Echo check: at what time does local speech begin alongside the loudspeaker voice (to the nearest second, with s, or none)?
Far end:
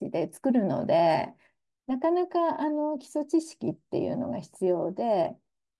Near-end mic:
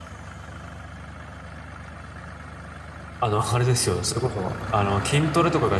3 s